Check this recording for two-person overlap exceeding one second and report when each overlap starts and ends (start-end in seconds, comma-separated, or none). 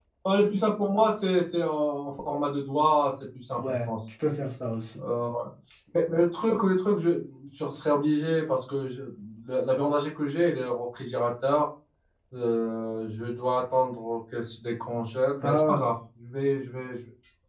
none